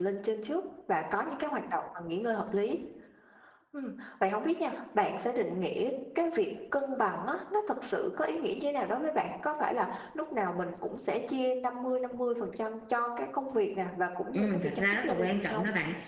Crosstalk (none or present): present